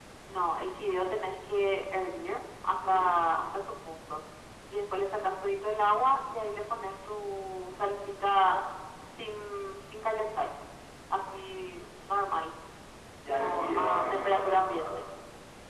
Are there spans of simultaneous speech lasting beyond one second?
Yes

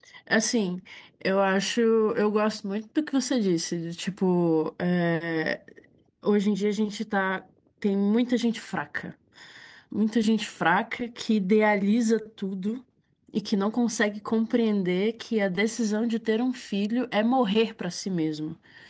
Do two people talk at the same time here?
No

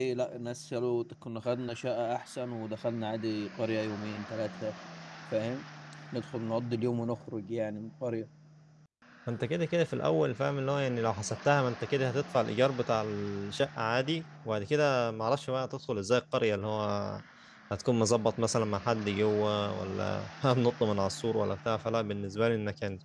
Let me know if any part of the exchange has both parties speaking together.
No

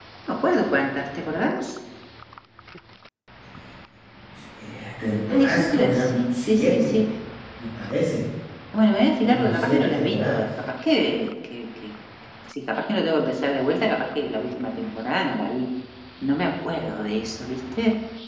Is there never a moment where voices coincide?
No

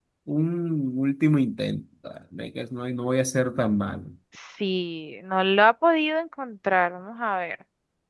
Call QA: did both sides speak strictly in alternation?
Yes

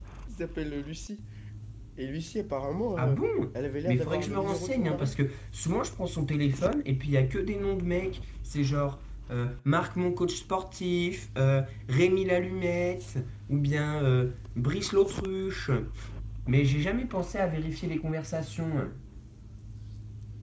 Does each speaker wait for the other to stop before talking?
No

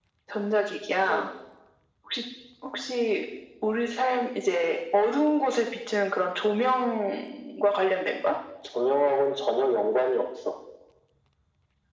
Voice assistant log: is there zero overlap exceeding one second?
Yes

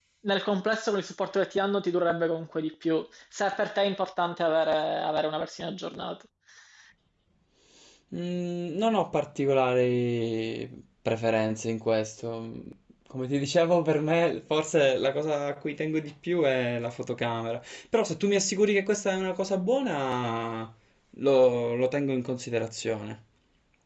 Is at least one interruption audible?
No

